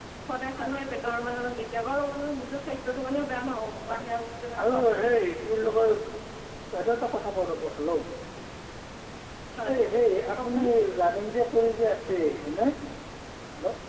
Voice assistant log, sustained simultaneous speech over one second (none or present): none